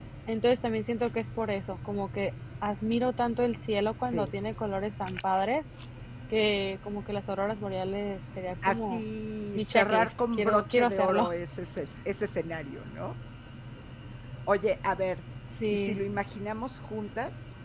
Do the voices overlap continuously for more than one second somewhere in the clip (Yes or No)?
Yes